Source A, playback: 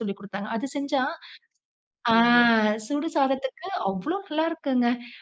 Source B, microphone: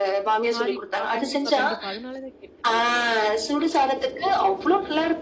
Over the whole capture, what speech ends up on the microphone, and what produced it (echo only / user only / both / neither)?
both